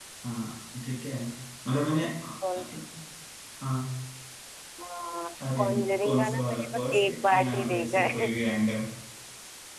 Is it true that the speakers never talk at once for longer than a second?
No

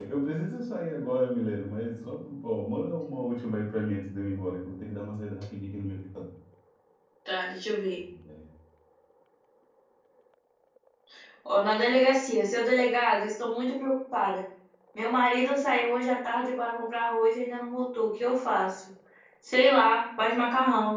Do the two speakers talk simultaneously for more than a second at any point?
No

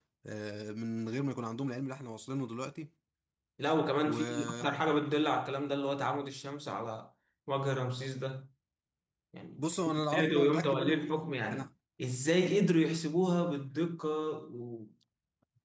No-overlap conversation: No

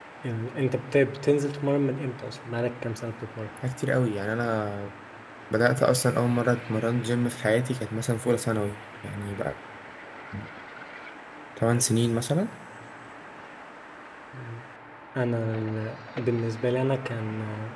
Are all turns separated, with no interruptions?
Yes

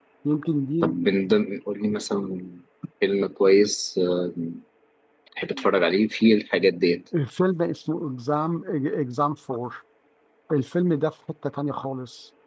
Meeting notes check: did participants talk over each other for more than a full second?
No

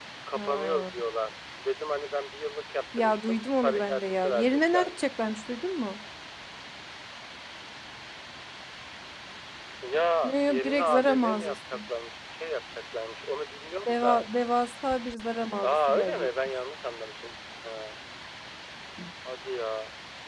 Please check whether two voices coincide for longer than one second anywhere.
Yes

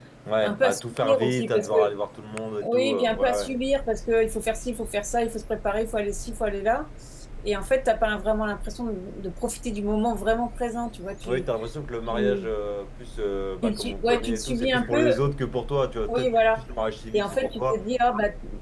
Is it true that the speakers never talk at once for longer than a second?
No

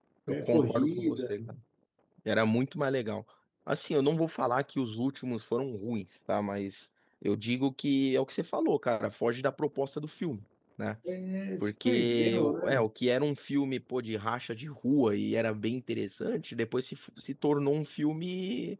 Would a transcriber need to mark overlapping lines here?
Yes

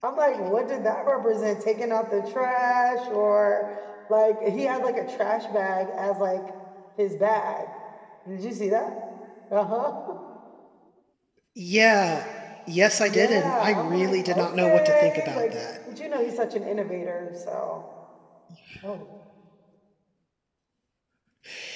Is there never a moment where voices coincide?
No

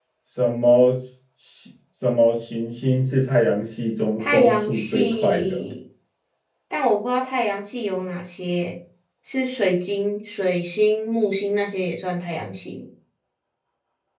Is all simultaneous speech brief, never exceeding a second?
No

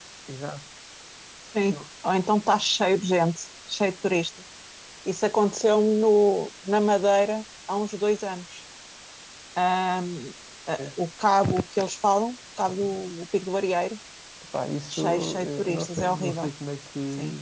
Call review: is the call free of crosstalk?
No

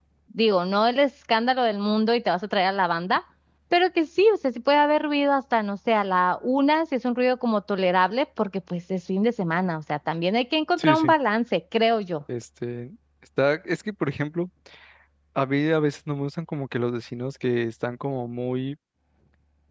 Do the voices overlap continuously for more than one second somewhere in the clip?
No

